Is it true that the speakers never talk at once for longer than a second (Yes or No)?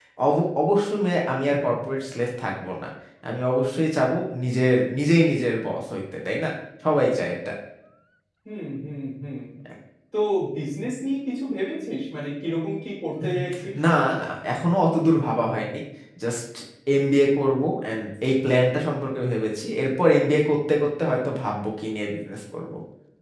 Yes